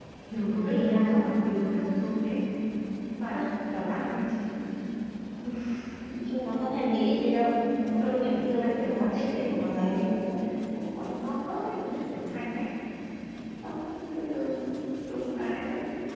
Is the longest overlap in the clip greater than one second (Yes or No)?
Yes